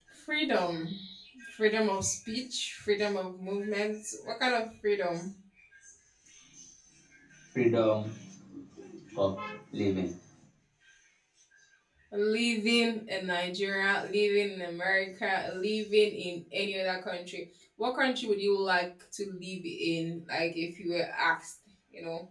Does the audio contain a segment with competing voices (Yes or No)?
No